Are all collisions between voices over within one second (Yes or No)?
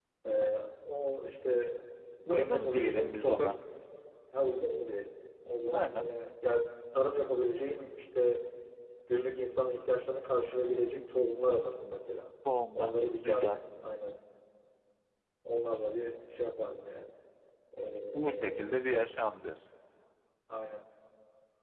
No